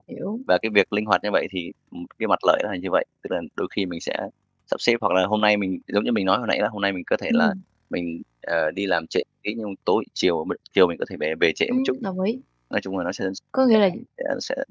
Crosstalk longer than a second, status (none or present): none